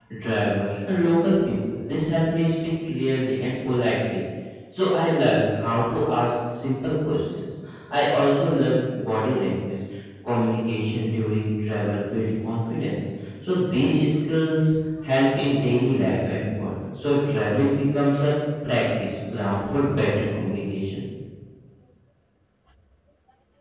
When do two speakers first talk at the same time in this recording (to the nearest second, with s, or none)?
none